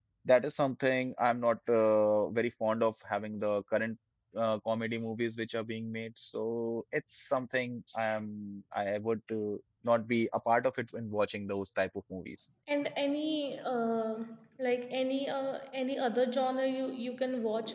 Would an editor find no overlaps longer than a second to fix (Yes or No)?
Yes